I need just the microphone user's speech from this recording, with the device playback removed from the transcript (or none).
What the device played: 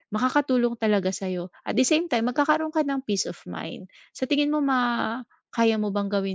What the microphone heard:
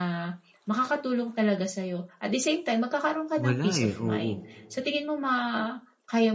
Wala, eh, oo.